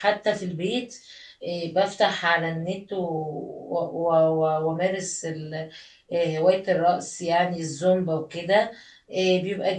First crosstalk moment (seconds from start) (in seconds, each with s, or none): none